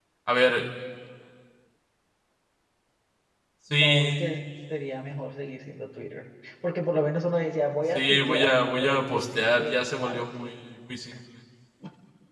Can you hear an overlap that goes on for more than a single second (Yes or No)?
Yes